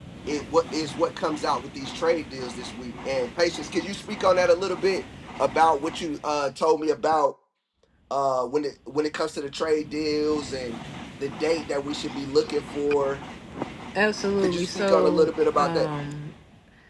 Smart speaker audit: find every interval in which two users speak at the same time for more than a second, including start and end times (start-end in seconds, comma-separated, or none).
14.4-15.8